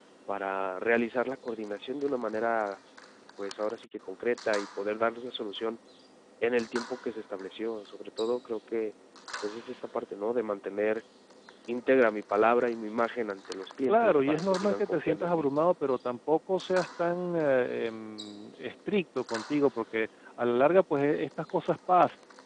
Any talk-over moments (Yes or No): Yes